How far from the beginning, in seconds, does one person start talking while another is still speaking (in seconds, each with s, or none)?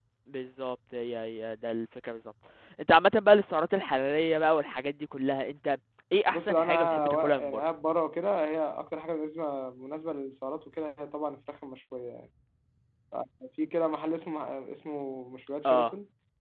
6.3 s